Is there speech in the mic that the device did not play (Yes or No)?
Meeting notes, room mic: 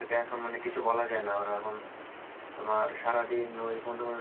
Yes